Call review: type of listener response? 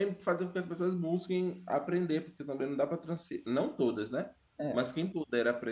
listening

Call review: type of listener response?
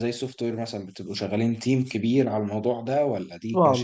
taking over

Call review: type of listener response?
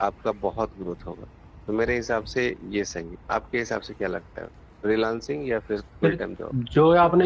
taking over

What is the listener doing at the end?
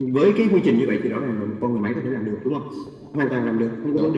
listening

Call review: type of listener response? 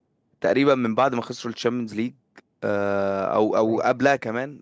listening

